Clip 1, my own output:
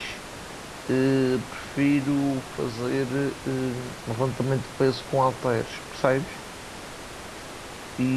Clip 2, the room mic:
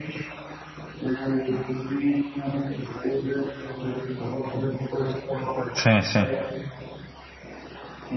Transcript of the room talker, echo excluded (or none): sim, sim,